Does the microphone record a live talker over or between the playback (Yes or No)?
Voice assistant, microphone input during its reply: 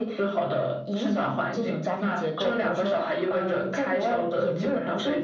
No